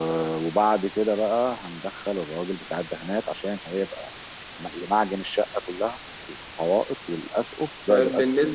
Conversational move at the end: taking over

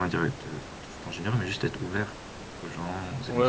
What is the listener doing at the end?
taking over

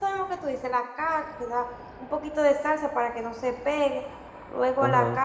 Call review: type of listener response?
taking over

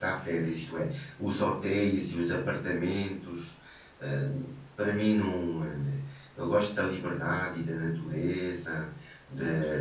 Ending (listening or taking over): listening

